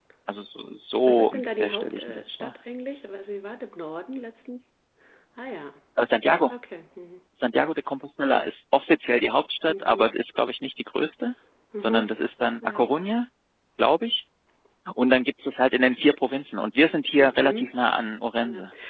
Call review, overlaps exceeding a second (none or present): present